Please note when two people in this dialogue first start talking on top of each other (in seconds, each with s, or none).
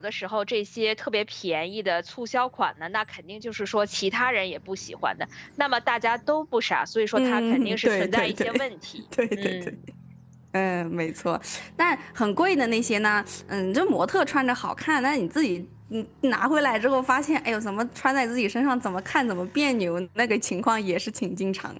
7.1 s